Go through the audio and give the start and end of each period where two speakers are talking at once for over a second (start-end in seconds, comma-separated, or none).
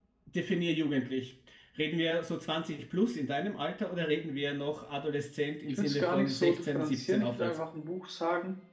5.7-7.6